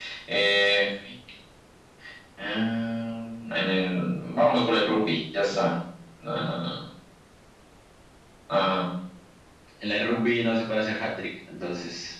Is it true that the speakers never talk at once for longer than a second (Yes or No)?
Yes